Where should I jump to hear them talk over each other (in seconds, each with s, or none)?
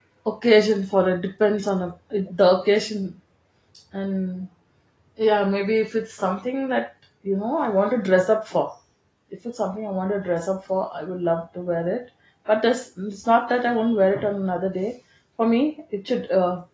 none